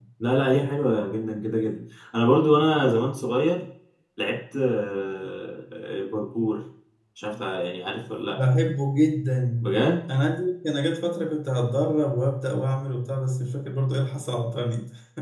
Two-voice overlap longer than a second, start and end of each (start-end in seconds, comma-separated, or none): none